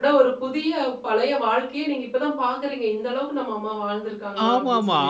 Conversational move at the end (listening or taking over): taking over